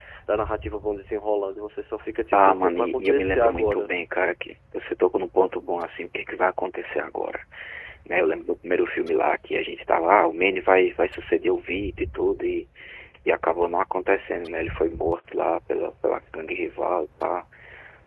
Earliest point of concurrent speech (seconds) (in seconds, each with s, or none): 2.3 s